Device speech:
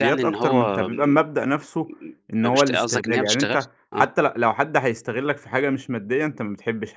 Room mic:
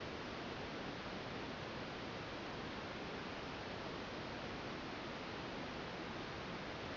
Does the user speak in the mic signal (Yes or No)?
No